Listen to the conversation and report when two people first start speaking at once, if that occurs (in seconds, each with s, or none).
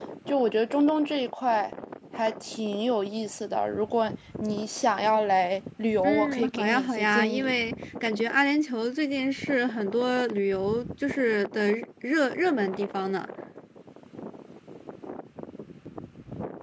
6.0 s